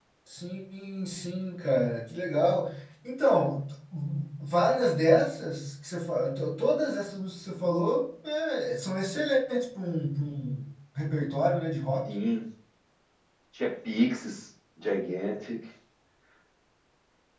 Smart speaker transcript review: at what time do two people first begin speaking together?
none

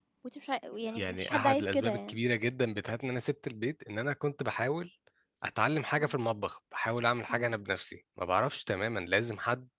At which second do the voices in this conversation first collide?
1 s

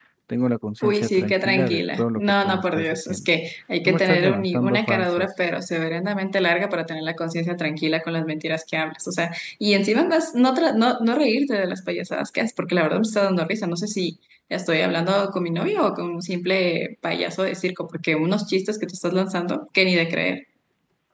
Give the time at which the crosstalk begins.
1 s

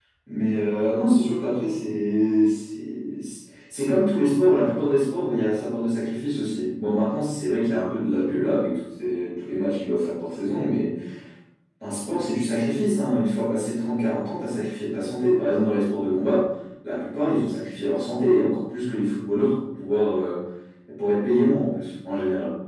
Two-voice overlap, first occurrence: none

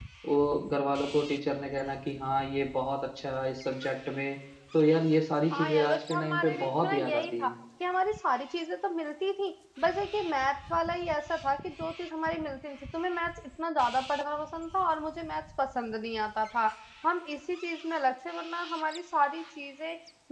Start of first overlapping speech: 6 s

